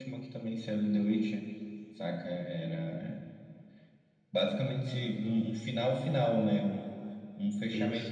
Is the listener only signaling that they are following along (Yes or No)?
Yes